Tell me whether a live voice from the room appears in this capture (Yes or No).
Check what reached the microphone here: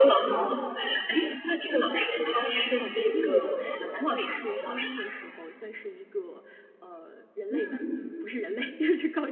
Yes